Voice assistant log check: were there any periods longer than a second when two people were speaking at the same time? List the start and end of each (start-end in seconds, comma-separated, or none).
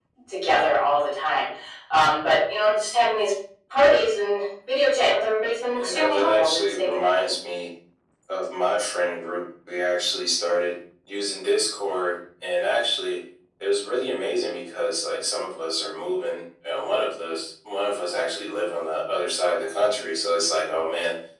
5.8-7.3